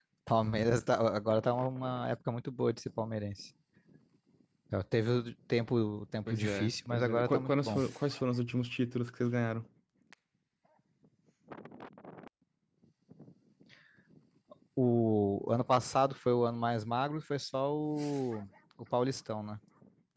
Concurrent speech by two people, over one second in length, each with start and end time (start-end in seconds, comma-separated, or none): 6.3-7.8